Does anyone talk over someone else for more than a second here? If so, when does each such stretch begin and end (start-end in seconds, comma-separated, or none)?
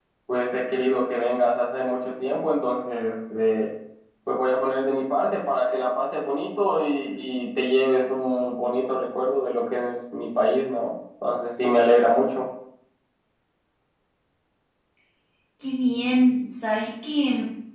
none